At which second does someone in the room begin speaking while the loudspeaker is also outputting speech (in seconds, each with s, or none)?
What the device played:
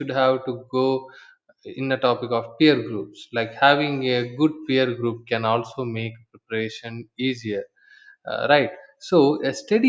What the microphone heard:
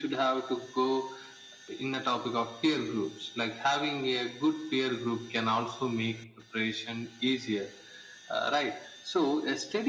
none